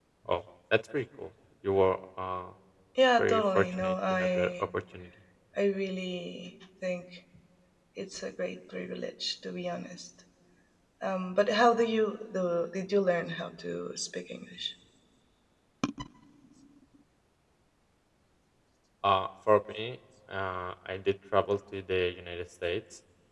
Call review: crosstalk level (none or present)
present